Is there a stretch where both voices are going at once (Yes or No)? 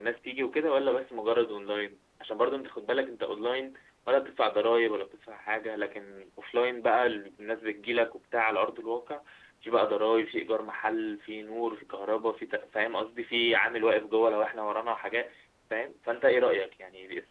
No